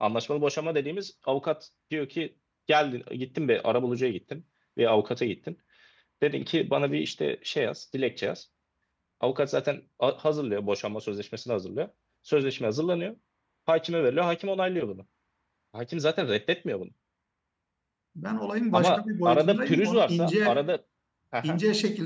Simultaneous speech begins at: 19 s

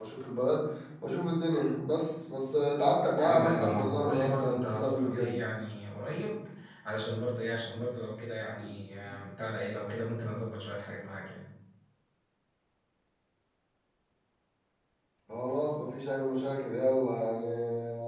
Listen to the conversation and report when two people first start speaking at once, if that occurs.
3 s

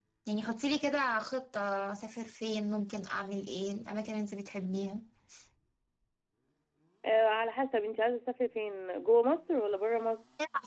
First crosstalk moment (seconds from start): none

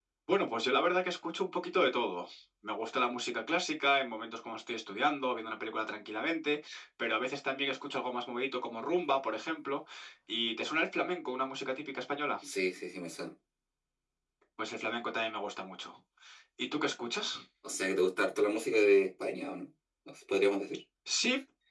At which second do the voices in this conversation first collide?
none

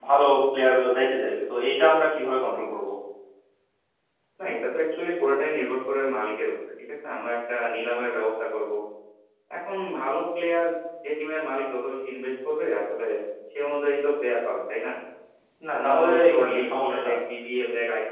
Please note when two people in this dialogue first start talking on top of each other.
16 s

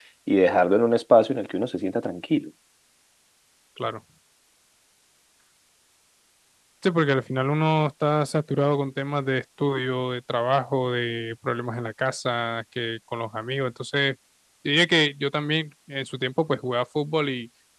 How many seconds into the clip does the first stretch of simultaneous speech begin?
none

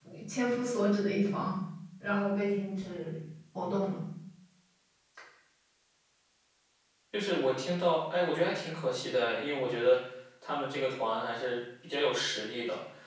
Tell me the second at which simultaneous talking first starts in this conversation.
none

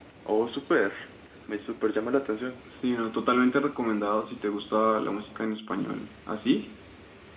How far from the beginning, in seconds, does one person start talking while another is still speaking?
none

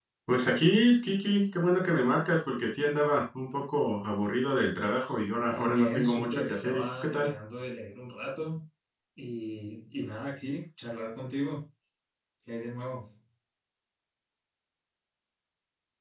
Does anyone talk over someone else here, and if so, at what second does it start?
5 s

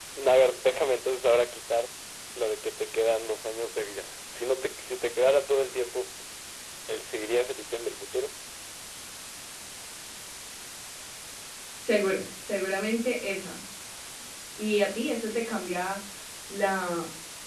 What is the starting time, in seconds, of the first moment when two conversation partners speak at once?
none

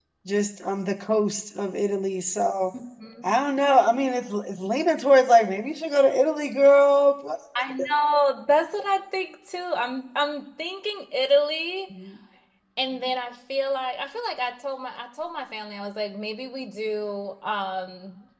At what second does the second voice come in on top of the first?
none

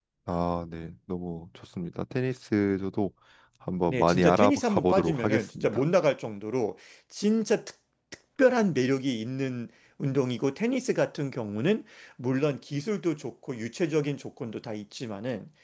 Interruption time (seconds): 4 s

